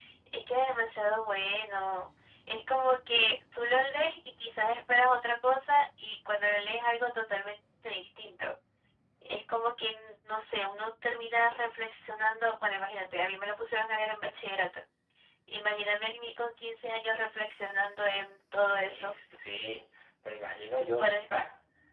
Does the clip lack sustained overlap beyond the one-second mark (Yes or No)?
Yes